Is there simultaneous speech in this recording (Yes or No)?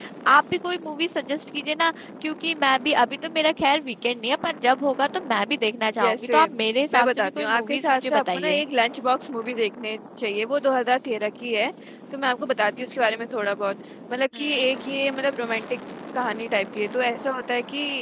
Yes